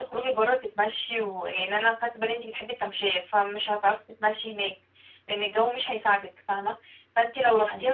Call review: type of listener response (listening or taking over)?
listening